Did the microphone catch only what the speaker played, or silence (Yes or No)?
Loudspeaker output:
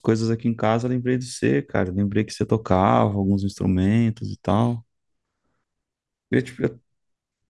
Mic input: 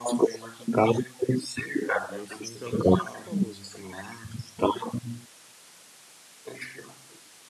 No